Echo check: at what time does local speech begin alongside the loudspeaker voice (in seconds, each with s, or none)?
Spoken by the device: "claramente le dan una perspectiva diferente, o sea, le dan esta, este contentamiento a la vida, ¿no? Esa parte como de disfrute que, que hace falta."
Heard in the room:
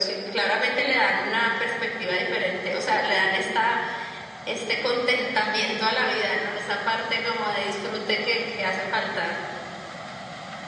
none